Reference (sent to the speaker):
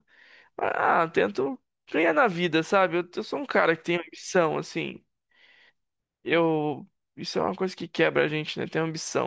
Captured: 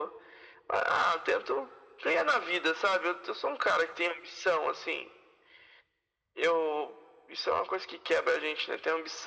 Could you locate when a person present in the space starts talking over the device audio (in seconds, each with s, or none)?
none